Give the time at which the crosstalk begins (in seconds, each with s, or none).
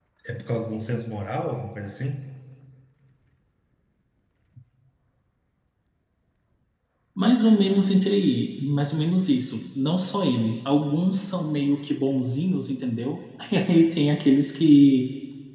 none